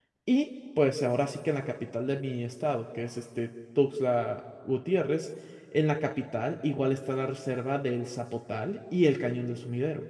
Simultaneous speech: No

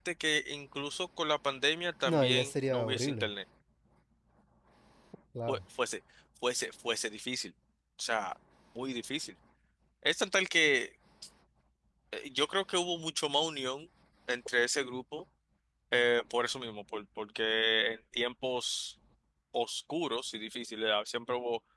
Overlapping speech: Yes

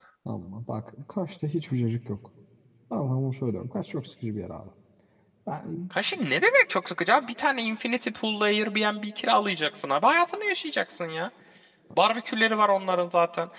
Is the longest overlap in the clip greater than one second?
No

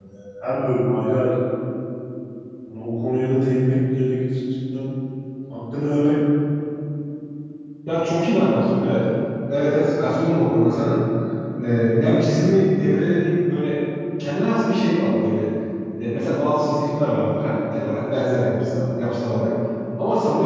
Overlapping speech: No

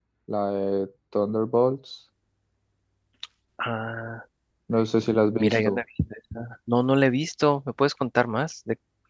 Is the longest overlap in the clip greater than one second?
No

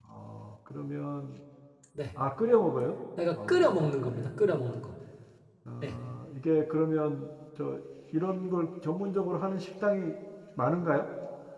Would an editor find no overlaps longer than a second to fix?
No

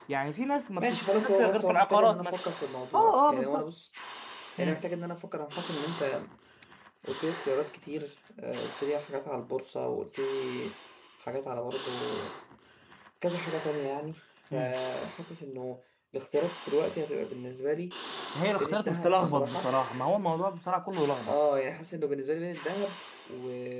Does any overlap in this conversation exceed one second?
Yes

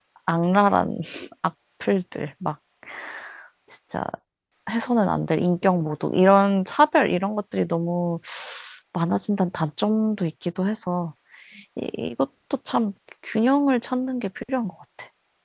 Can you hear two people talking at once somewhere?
No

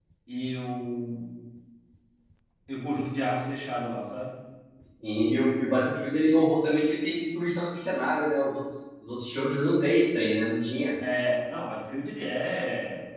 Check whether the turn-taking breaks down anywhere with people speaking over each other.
No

